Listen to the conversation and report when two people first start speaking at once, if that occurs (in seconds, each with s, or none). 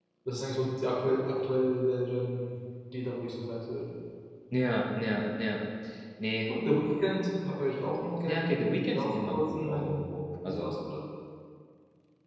8.2 s